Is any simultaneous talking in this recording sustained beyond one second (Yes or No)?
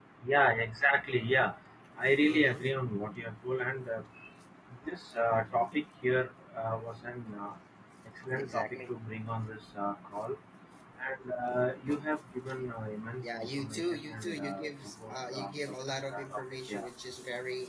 Yes